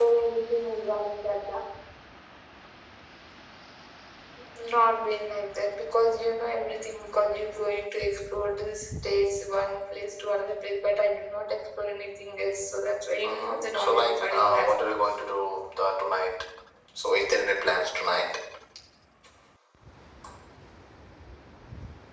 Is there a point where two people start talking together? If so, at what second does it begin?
13 s

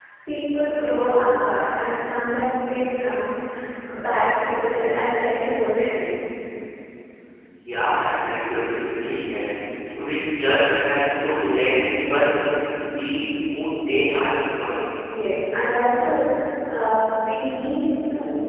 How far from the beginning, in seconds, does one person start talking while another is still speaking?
none

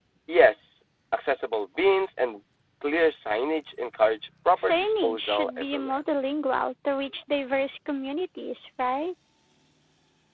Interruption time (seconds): 5 s

